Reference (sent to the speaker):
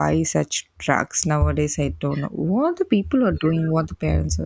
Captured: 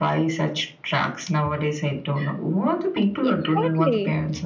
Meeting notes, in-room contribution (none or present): present